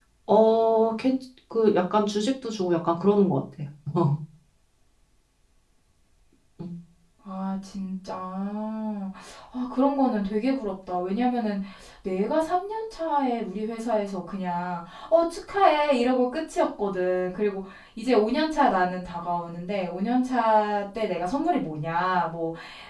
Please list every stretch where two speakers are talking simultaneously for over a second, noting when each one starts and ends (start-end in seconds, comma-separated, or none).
none